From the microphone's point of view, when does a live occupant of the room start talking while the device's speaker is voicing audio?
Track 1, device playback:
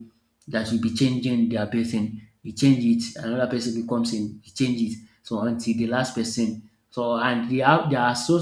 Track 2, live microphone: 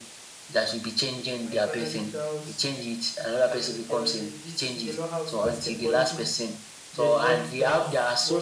1 s

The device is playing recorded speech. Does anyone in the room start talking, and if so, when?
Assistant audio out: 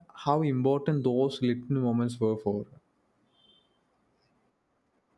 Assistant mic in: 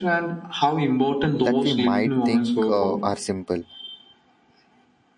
1 s

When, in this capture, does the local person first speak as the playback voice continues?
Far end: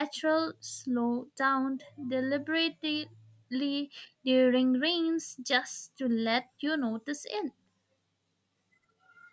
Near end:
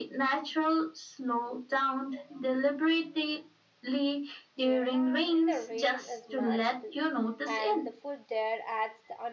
5 s

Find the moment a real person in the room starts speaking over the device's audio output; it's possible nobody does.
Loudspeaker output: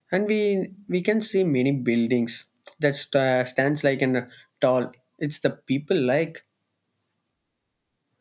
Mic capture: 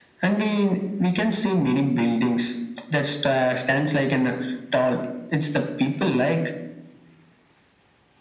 none

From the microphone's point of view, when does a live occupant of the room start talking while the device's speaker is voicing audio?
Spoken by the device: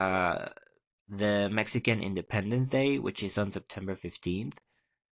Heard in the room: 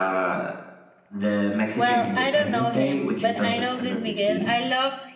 2 s

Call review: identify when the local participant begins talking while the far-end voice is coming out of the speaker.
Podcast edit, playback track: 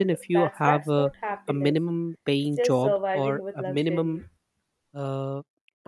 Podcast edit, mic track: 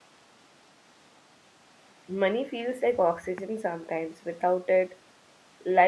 2 s

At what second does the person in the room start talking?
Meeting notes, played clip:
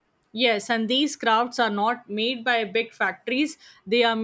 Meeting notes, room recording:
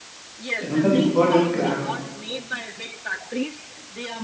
1 s

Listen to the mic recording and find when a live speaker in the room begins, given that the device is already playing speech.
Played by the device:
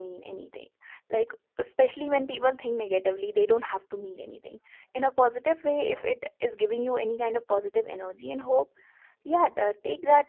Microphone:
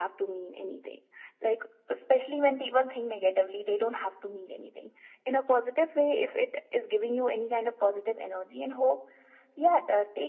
none

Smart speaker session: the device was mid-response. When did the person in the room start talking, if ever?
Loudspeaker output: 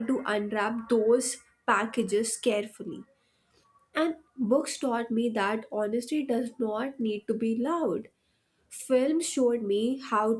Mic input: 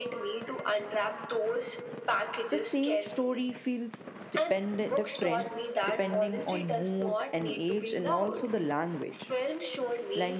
3 s

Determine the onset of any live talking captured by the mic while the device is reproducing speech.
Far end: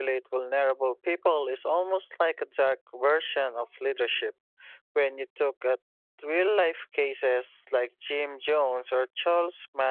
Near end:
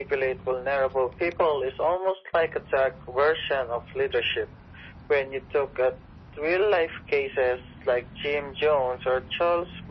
none

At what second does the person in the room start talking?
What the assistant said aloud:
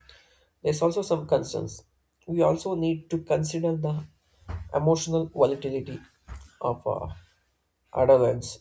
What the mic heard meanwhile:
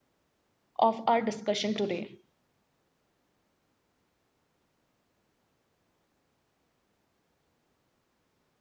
1 s

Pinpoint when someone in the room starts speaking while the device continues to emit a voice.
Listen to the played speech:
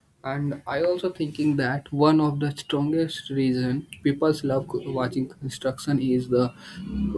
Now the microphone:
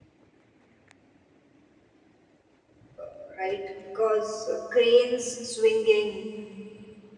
3 s

